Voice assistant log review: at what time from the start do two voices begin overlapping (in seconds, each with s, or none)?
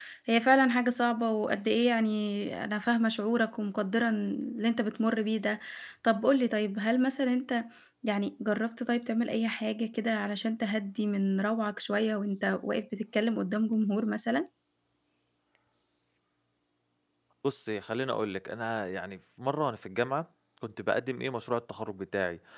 none